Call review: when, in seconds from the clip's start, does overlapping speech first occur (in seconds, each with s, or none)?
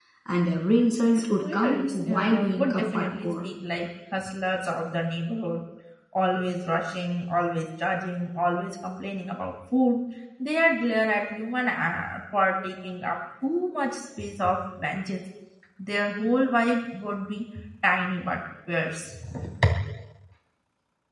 1.2 s